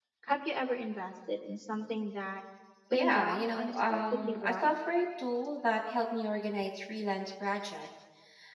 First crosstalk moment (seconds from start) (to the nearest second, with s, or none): 3 s